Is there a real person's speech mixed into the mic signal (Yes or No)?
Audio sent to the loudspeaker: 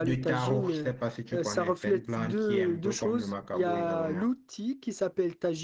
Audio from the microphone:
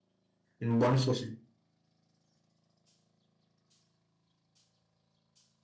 Yes